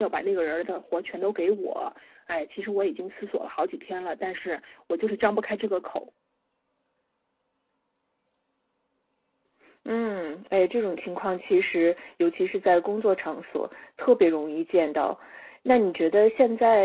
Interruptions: none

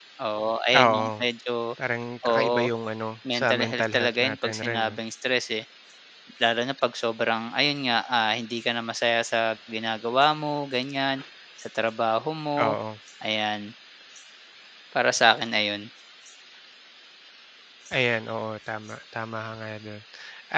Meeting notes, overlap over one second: present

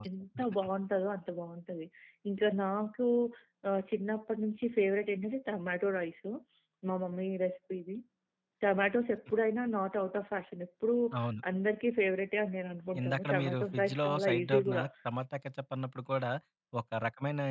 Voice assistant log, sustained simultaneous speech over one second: present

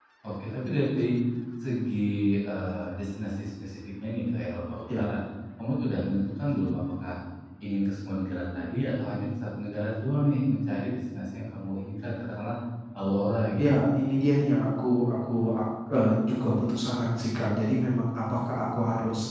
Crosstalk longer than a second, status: none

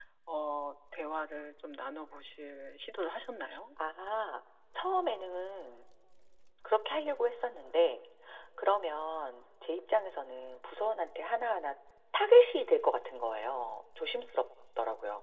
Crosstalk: none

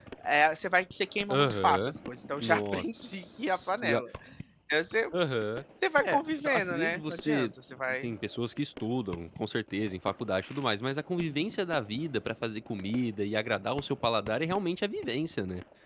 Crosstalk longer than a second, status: present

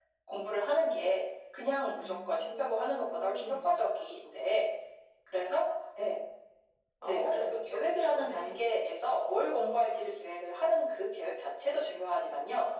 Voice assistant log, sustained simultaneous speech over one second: present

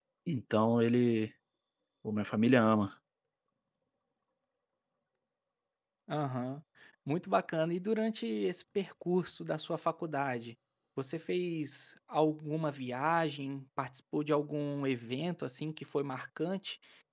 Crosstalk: none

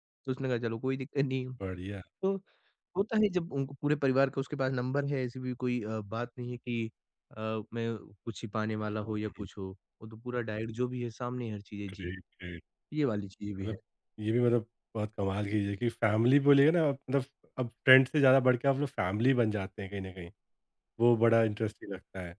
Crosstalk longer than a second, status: none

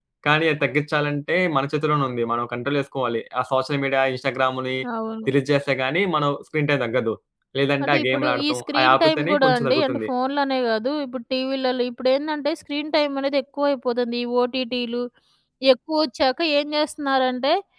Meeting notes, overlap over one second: present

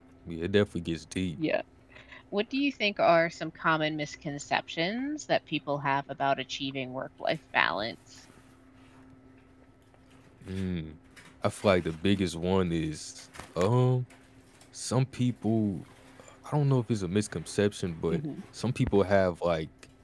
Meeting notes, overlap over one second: none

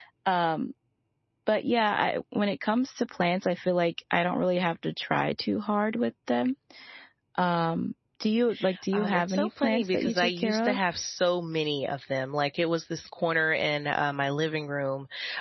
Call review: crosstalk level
present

